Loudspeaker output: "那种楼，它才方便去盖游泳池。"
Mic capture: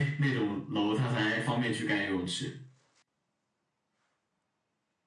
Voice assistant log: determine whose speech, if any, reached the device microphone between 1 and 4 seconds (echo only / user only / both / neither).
echo only